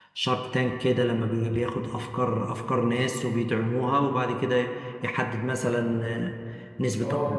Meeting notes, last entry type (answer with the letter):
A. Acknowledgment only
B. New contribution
B